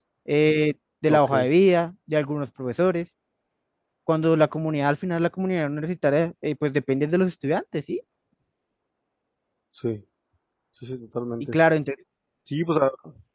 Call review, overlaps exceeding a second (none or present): none